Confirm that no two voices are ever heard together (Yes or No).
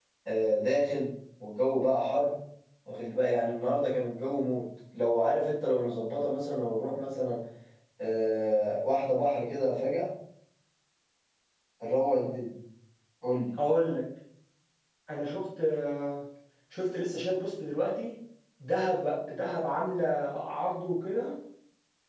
Yes